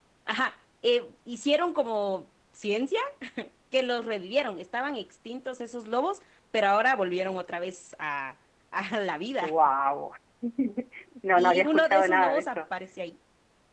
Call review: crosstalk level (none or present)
present